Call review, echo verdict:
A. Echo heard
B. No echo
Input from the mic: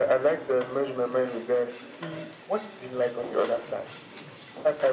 A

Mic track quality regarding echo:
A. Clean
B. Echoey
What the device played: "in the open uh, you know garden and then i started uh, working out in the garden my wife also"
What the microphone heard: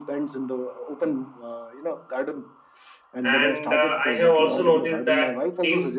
B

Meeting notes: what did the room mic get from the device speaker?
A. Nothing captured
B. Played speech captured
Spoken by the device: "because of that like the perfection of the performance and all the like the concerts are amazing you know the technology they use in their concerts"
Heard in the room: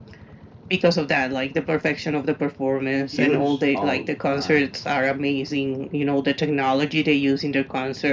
B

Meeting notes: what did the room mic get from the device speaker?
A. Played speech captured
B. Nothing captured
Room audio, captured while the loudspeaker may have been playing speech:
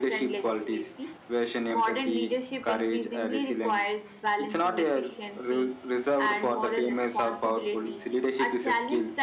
A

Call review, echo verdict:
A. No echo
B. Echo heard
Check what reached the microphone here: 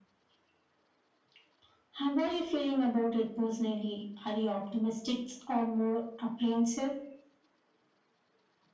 B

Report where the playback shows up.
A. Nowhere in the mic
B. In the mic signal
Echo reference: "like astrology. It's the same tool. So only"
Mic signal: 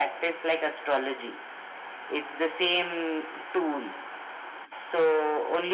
B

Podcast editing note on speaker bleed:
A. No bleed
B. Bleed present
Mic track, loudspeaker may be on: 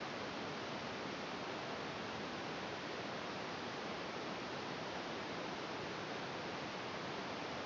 A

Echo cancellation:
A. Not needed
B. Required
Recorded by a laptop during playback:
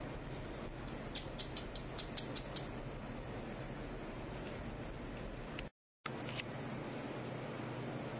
A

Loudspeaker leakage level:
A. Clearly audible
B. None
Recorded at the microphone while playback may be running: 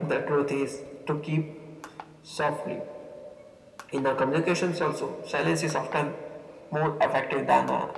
A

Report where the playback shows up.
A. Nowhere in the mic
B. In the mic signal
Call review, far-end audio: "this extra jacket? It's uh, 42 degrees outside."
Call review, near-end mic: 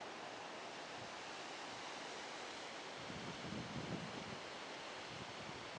A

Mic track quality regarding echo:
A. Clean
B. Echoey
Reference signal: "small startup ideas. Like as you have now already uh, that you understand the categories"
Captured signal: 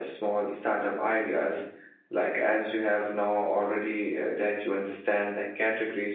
B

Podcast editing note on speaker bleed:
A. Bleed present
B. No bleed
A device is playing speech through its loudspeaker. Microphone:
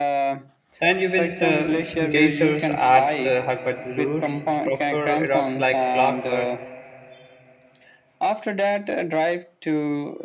A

